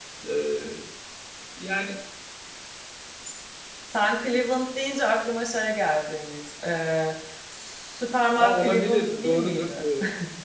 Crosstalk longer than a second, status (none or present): present